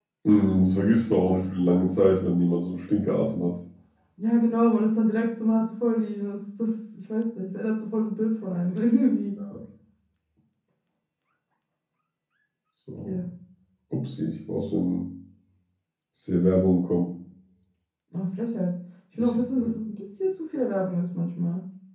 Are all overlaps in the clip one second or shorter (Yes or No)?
Yes